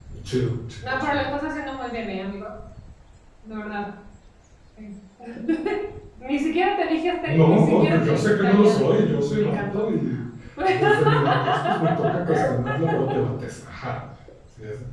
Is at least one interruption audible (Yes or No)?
Yes